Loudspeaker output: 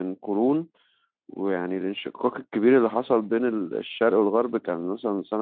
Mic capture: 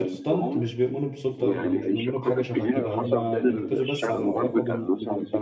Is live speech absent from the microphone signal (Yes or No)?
No